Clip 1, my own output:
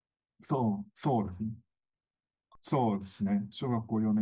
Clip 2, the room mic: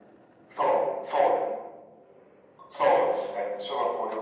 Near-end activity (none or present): none